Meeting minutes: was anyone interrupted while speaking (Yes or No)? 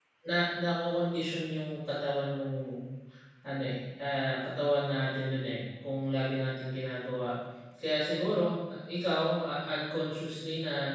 No